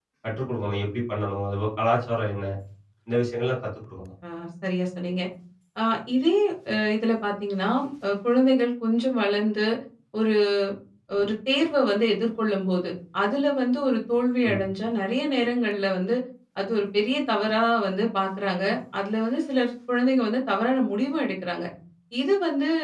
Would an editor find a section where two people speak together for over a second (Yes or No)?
No